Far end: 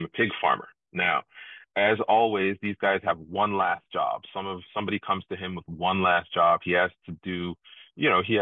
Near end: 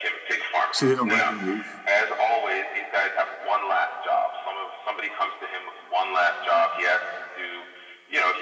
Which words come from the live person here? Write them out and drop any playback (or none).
So they don't let him leave.